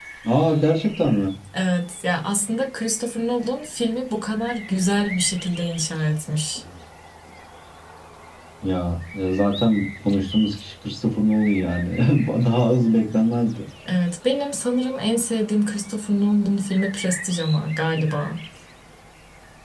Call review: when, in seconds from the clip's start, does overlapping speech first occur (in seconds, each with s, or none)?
none